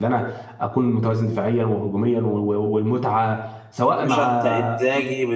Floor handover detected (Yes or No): Yes